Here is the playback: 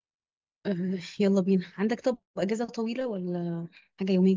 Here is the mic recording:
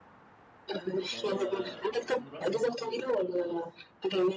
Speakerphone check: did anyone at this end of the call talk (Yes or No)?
Yes